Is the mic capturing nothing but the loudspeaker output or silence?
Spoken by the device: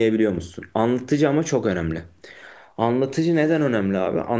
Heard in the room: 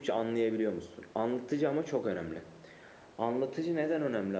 Yes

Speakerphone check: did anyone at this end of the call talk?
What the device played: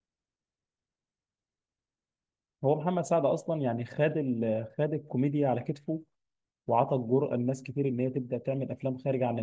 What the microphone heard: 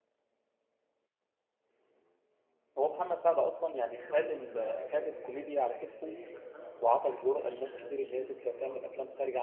Yes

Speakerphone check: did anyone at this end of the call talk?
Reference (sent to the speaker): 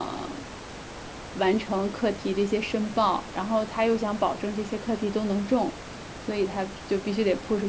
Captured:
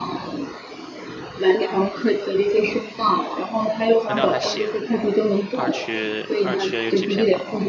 Yes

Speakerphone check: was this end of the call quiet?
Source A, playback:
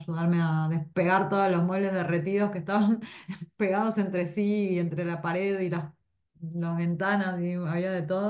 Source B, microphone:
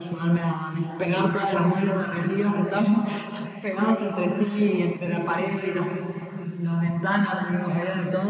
Yes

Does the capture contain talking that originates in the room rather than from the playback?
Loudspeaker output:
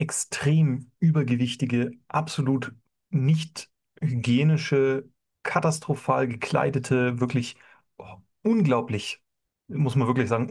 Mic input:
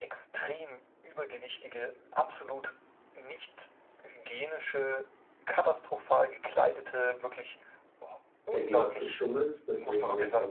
Yes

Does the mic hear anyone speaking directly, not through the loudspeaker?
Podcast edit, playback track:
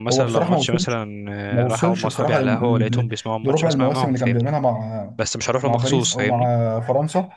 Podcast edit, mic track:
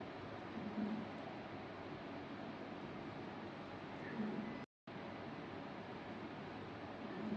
No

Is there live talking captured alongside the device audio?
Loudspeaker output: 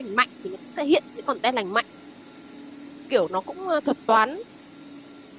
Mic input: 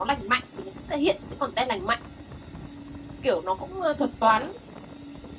No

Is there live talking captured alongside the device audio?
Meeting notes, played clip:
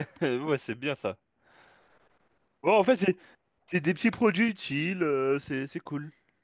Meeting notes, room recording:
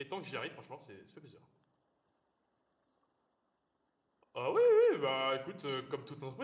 Yes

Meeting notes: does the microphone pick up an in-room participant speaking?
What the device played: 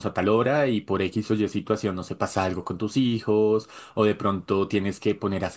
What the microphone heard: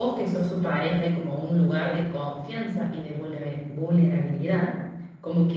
Yes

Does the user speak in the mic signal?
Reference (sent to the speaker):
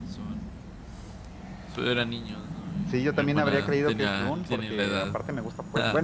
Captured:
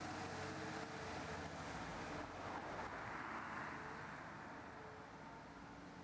No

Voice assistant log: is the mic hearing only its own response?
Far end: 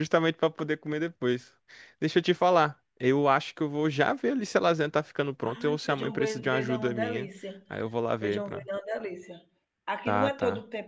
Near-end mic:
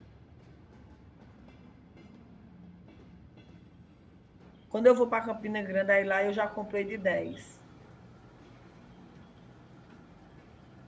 No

